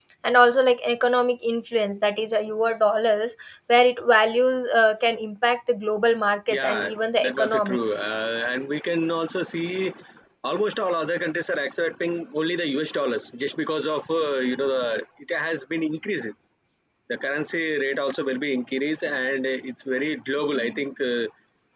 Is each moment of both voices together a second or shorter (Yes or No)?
No